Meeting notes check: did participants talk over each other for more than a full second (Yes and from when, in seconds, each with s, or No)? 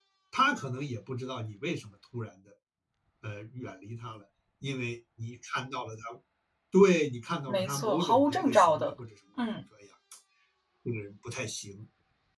Yes, from 7.5 s